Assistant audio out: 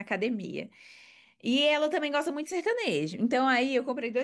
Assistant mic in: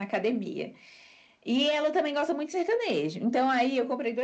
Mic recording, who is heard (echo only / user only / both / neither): echo only